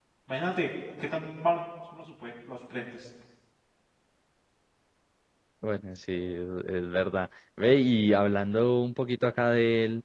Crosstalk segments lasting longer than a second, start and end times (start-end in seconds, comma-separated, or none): none